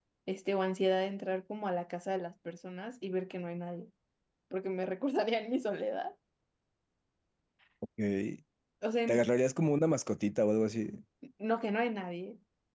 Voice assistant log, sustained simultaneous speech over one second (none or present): none